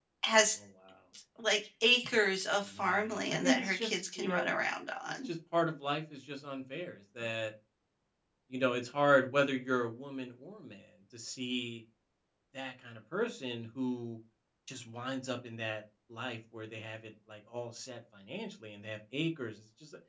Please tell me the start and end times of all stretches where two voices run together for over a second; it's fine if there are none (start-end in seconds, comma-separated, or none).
2.8-4.5